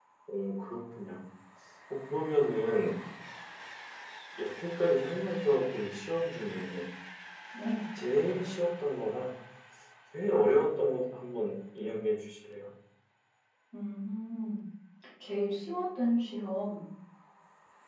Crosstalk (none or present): none